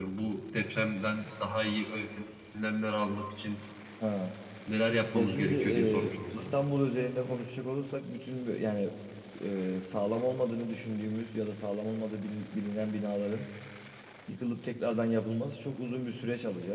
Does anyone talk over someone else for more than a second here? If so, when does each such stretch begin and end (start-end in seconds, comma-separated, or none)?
5.1-6.6